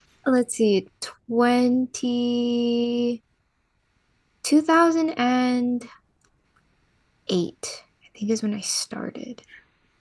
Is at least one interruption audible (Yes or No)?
No